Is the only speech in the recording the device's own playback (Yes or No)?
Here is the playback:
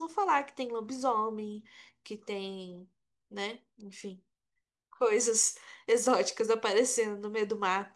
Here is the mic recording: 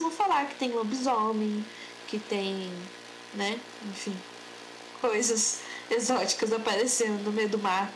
Yes